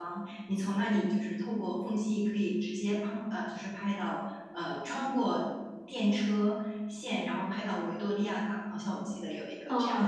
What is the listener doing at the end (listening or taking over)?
taking over